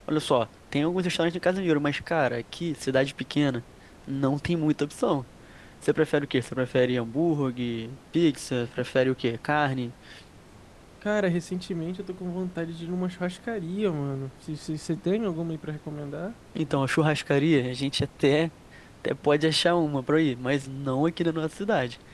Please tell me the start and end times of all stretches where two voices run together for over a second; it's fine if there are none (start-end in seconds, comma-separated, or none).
none